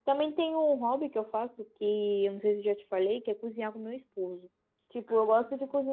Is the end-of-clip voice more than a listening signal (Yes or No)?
No